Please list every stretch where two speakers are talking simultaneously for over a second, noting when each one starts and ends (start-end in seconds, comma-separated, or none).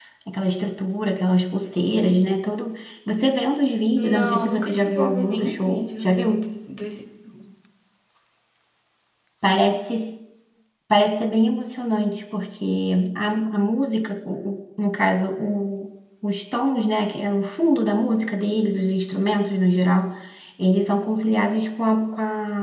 4.0-6.5